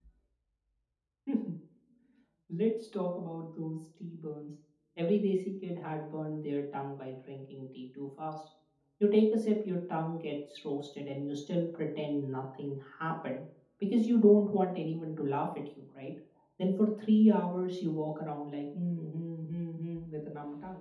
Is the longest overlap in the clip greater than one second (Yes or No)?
No